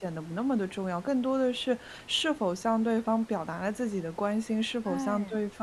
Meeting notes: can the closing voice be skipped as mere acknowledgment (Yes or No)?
Yes